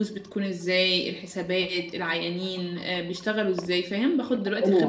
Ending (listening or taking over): taking over